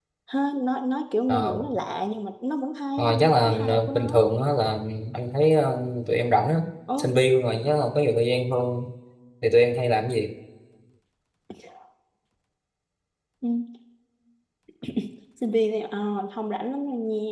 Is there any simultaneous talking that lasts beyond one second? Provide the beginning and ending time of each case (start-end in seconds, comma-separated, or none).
3.0-4.2